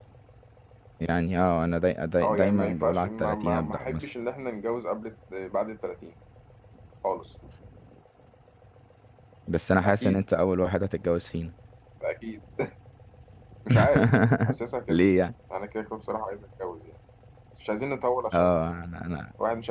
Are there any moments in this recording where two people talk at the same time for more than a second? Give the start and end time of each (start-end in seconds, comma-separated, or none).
2.2-4.0